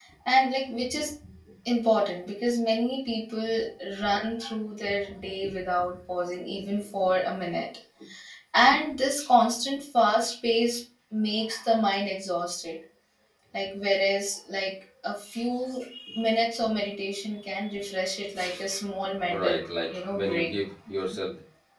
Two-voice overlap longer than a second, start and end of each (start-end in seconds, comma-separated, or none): 19.3-20.5